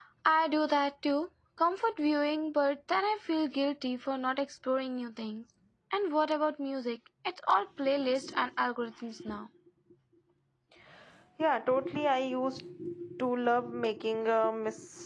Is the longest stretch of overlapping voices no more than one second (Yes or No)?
Yes